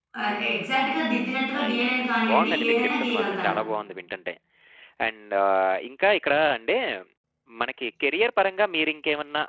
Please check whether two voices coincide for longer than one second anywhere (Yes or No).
Yes